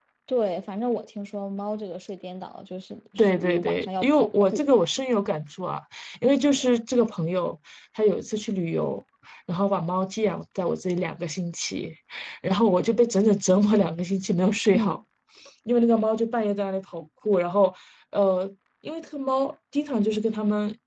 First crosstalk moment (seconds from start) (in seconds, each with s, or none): 3.2 s